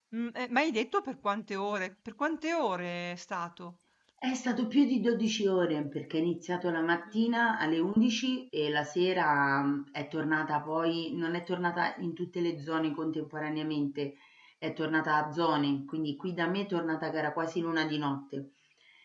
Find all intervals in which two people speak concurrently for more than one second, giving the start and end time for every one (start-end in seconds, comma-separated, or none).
none